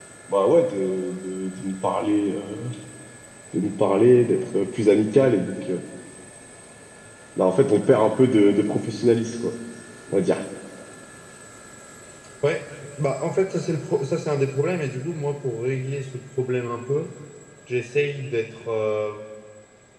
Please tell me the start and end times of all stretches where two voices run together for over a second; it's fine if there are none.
none

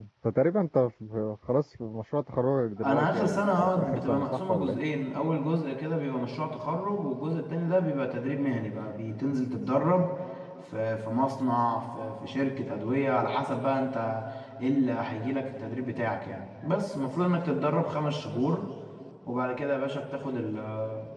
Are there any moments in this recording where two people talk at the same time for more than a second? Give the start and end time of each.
2.8-4.8

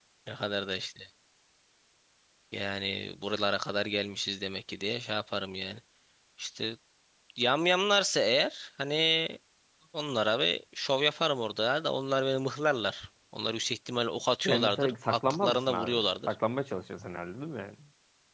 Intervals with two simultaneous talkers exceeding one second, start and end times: 14.4-16.4

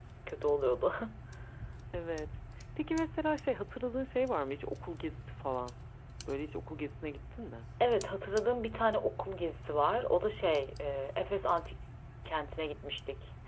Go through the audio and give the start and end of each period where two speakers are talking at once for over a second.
none

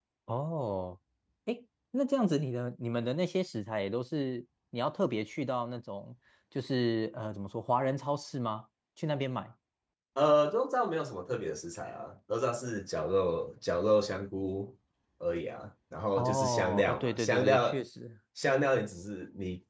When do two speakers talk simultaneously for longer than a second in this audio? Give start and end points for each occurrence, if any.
16.2-17.8

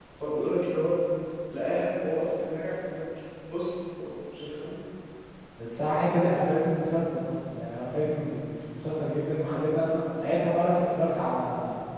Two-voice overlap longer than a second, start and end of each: none

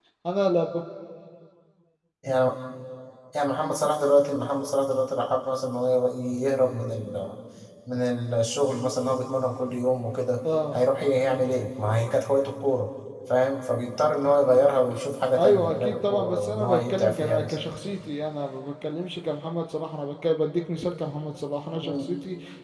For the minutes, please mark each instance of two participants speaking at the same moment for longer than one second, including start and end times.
15.4-17.5

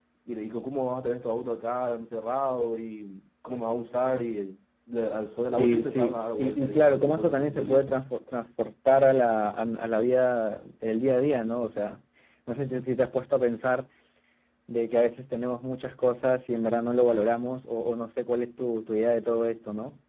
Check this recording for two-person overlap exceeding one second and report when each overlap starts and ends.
5.6-7.8

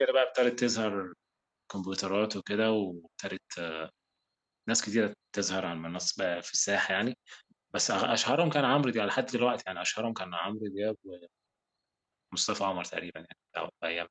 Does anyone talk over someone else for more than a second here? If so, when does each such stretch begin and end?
none

